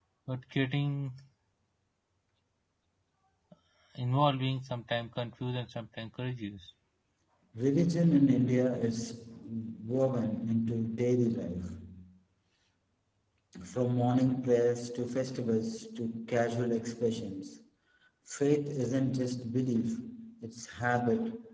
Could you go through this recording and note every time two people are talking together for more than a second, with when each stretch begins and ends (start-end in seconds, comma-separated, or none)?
none